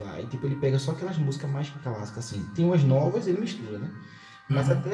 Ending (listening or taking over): listening